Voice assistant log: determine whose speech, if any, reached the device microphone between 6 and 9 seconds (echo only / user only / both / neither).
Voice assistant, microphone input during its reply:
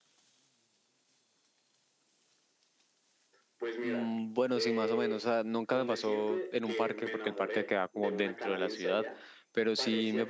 both